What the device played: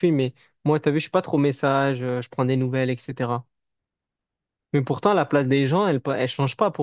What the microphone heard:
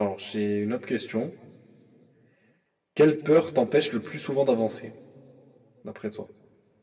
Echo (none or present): none